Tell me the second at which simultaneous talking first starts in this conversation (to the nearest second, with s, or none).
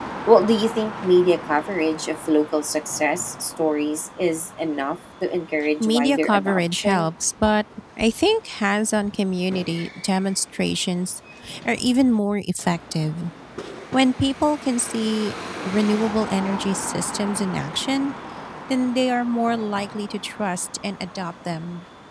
6 s